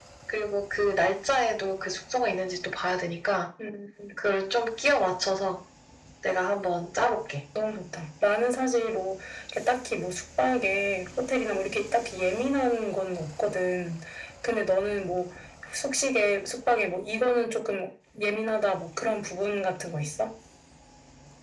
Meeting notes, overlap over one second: none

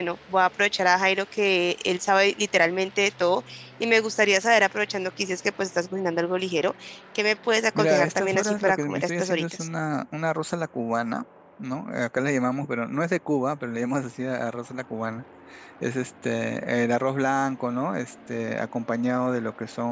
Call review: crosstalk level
present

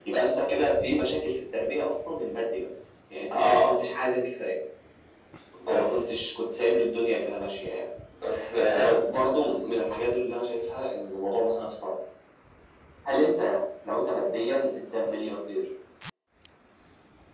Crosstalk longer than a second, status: none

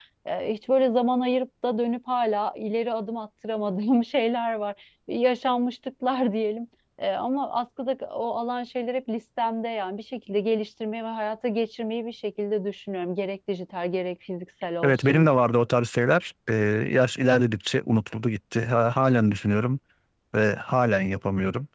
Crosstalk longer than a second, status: none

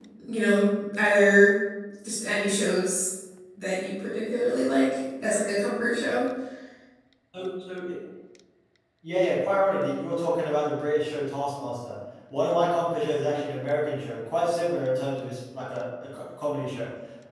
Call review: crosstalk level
none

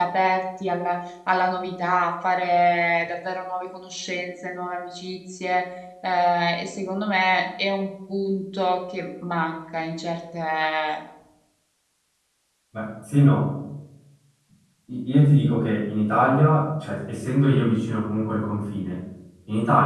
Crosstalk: none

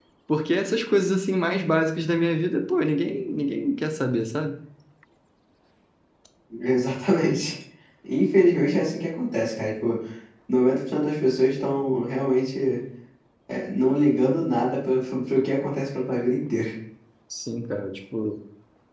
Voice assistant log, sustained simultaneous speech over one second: none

